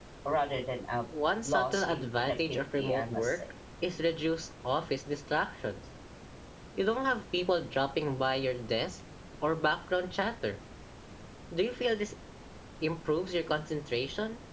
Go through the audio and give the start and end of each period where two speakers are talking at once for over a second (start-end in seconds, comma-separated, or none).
1.4-3.4